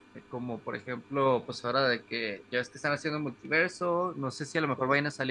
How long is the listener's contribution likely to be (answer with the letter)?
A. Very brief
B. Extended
A